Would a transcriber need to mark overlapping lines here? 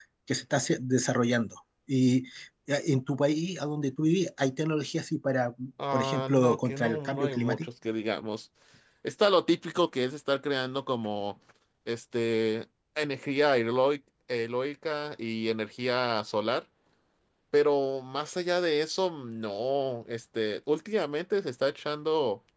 Yes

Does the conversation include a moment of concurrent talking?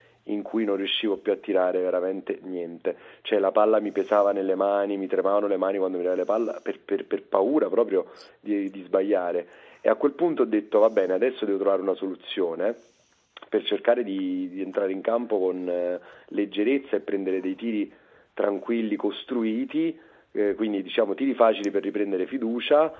No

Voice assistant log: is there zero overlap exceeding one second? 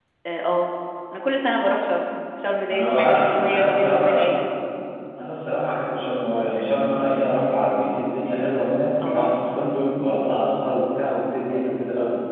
No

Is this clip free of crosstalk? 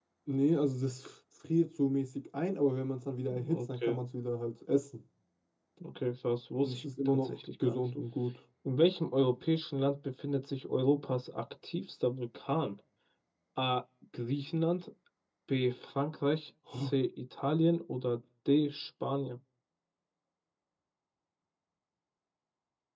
No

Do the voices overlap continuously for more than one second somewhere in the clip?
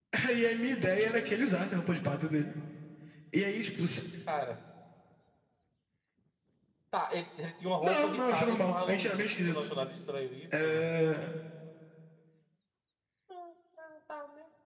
Yes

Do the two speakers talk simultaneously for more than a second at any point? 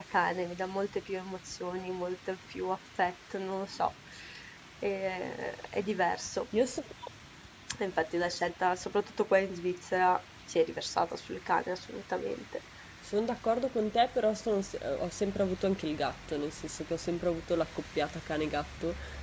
No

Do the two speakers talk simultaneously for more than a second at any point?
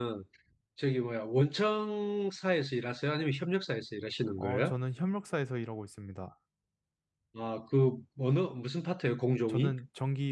No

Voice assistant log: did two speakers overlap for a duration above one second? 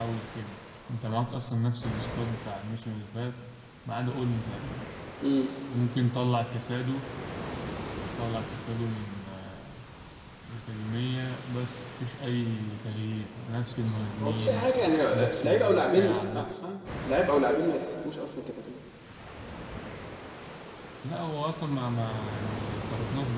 Yes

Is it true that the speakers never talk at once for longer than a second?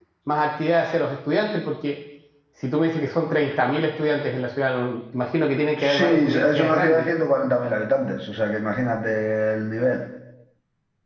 No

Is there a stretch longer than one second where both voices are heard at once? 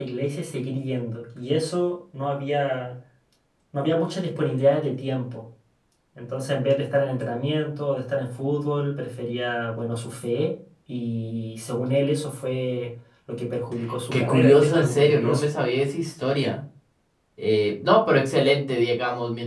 Yes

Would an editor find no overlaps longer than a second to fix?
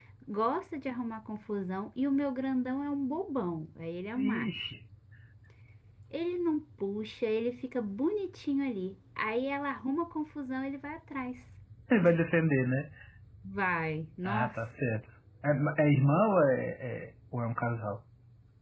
Yes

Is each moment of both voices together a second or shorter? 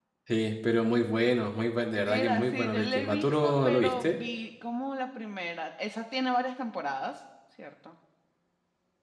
No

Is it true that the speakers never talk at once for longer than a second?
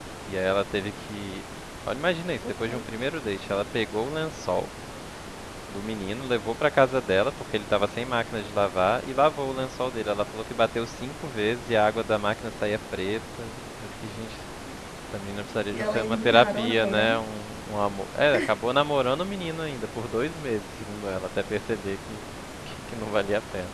No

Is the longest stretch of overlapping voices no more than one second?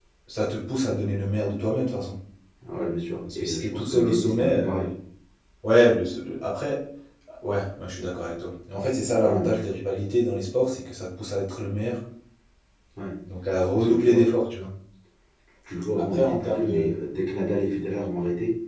No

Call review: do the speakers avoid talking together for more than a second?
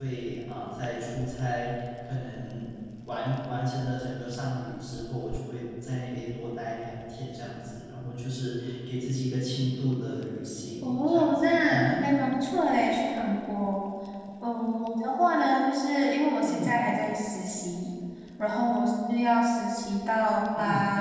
No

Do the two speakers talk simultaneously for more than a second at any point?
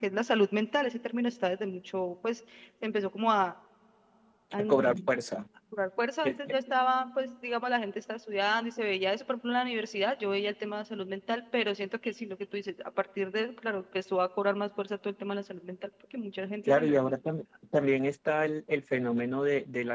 No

